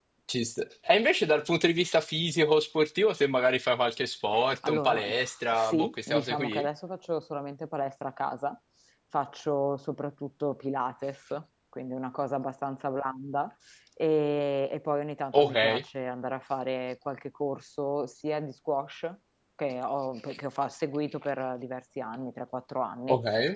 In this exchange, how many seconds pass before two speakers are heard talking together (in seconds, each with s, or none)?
4.7 s